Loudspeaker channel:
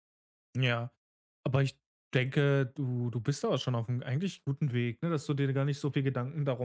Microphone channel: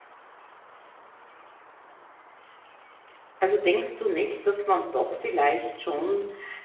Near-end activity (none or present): present